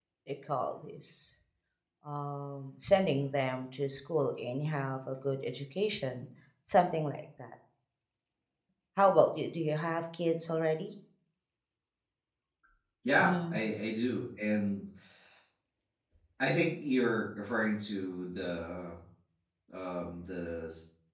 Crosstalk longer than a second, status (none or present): none